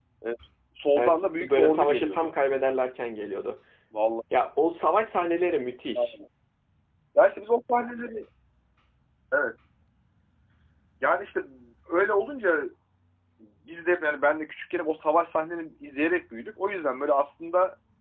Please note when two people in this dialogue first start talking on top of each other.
1.0 s

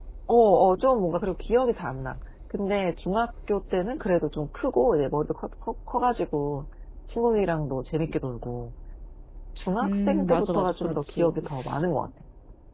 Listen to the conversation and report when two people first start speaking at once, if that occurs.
9.8 s

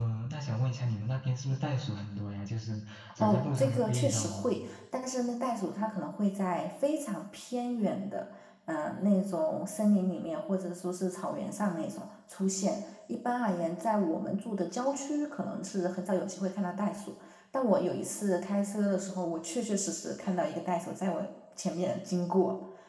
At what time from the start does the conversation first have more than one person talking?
3.2 s

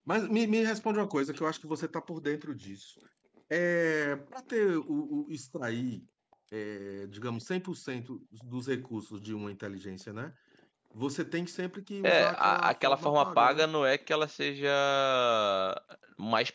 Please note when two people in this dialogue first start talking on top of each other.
12.0 s

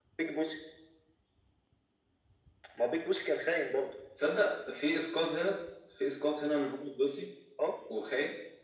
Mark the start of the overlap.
none

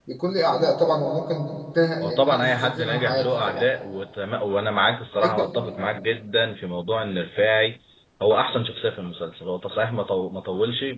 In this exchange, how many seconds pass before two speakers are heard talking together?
2.0 s

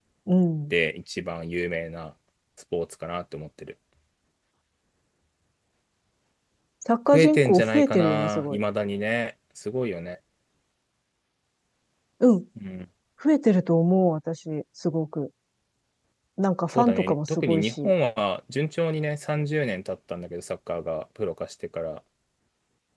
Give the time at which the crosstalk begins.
7.1 s

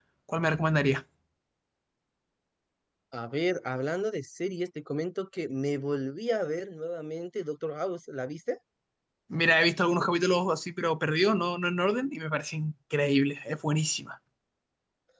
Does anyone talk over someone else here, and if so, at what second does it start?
none

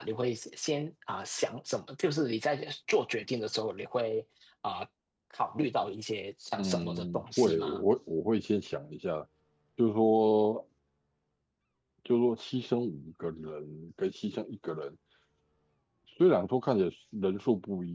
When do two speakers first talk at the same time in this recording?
6.6 s

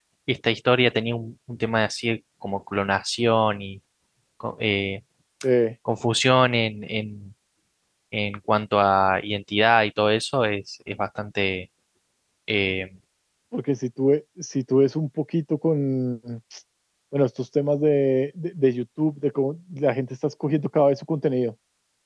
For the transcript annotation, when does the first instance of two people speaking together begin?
none

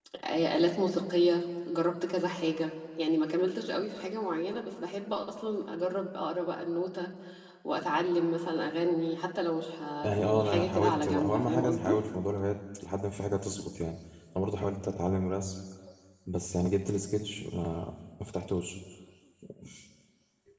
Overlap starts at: 10.0 s

